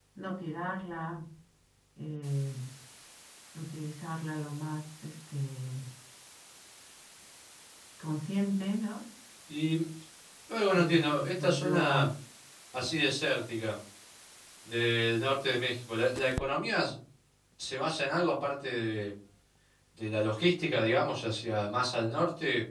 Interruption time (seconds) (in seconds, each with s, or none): 10.7 s